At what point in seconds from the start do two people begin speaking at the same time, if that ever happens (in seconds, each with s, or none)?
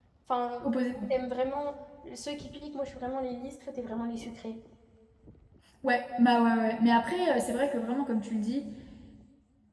none